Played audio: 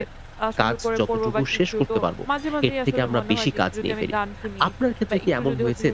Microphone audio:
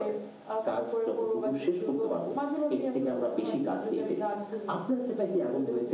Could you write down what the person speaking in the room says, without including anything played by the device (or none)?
none